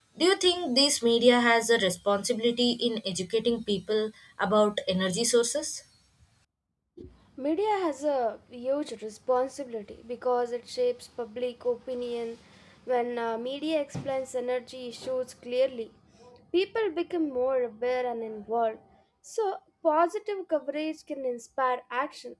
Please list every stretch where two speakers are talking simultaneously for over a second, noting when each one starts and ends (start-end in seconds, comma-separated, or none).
none